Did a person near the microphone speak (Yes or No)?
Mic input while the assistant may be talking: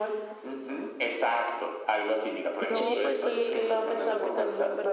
Yes